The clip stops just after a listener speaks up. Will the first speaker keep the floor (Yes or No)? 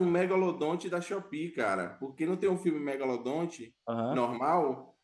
Yes